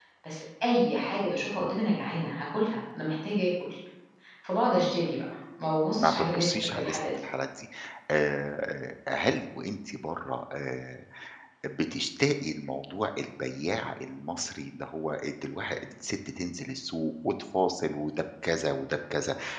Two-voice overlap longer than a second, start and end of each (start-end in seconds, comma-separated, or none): 6.0-7.2